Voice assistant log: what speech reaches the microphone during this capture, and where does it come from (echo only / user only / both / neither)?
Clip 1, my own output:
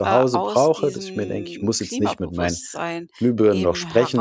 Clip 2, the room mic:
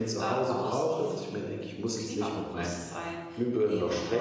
echo only